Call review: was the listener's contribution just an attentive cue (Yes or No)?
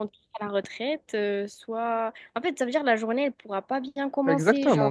No